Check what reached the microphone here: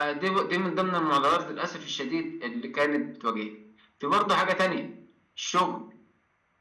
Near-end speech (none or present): none